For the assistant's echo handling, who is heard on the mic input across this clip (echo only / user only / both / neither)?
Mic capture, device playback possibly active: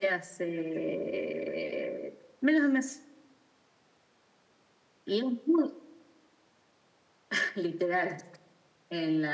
echo only